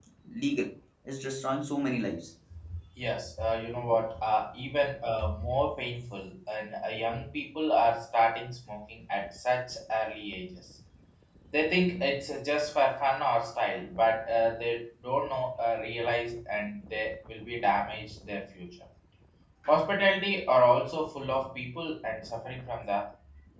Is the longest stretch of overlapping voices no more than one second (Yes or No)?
Yes